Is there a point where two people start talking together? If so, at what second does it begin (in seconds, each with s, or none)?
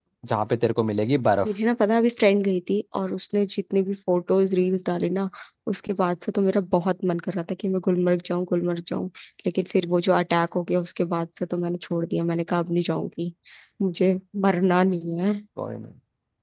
none